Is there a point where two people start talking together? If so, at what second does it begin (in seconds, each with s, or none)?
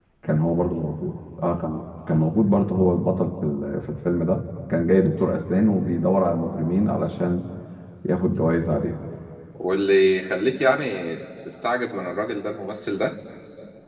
none